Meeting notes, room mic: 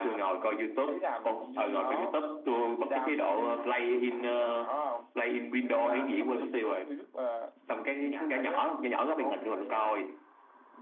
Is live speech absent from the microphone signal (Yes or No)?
No